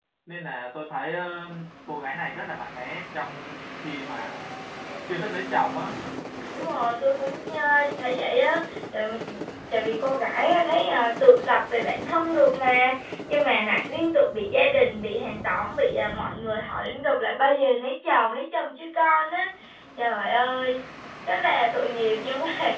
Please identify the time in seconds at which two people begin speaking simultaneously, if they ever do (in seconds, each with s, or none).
none